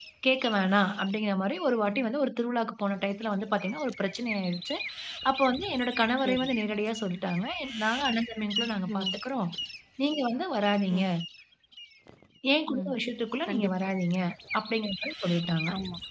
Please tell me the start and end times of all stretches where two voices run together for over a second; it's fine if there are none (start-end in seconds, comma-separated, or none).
none